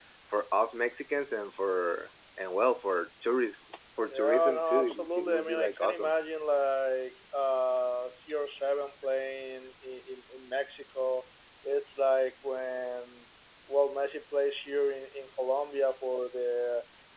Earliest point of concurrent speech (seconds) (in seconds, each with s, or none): 4.1 s